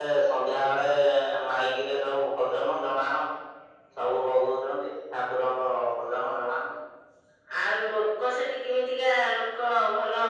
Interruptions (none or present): none